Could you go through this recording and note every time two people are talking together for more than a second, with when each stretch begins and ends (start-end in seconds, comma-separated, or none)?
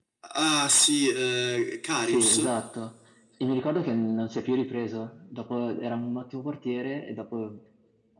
none